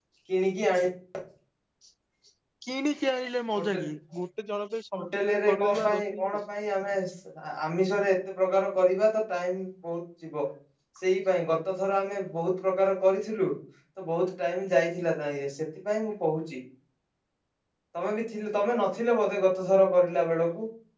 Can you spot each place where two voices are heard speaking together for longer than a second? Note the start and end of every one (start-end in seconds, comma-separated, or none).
5.0-6.4